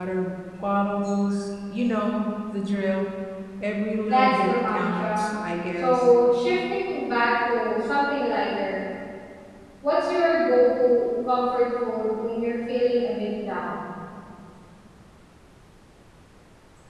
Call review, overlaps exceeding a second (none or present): present